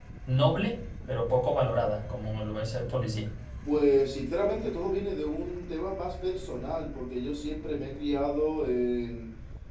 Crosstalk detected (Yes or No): No